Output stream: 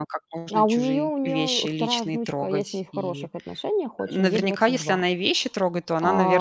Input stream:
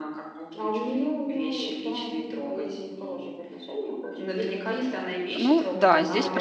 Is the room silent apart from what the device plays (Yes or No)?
No